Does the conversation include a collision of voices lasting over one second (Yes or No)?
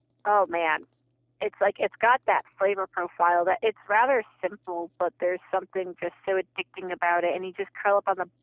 No